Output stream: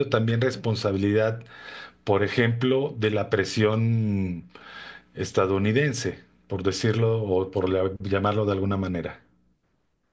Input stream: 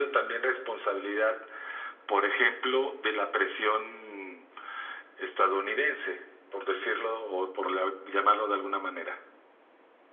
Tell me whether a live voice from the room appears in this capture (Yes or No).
No